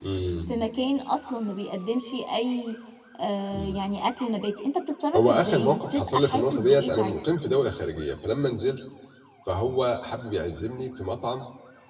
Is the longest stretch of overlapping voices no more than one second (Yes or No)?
No